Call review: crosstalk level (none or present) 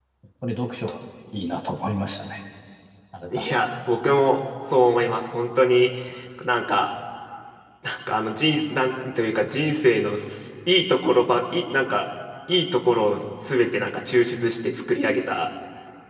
none